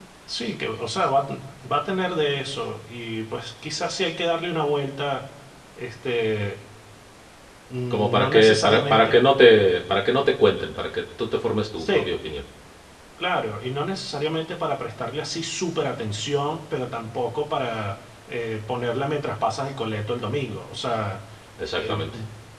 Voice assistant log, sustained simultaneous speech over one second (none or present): present